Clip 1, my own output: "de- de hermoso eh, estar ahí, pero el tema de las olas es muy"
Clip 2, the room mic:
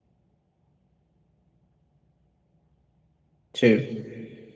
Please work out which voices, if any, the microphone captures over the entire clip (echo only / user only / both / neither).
user only